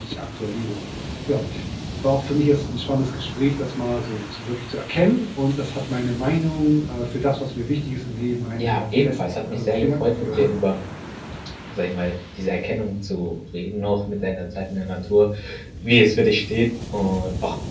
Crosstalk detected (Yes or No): Yes